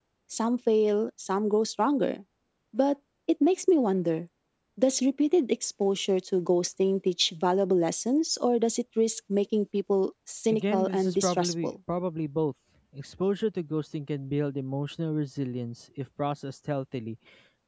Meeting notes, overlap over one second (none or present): present